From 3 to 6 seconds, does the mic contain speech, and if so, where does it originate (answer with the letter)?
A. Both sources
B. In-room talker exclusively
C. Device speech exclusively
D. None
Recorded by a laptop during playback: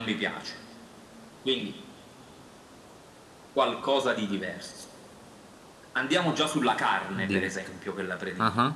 C